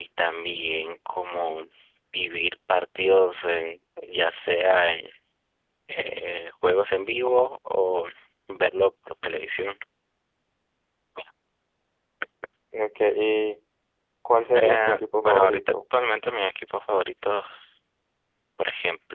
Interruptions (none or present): present